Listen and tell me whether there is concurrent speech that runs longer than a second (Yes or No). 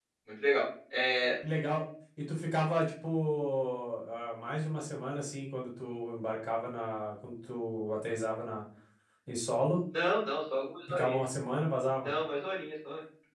No